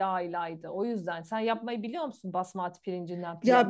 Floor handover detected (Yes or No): Yes